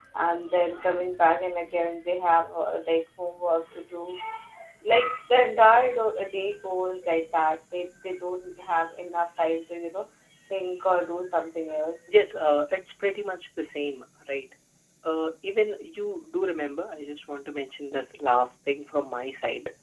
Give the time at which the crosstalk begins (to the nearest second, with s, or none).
none